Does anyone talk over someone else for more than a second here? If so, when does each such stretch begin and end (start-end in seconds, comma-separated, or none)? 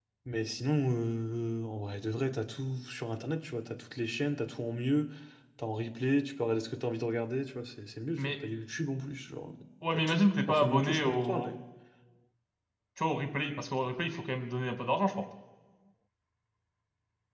9.9-11.5